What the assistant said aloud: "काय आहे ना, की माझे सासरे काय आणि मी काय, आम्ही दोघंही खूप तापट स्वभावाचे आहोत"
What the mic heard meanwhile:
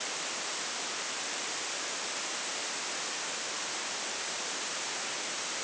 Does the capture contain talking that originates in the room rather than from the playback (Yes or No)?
No